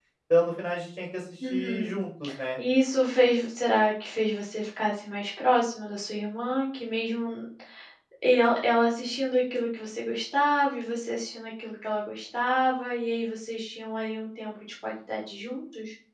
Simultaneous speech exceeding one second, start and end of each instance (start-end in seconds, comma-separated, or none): none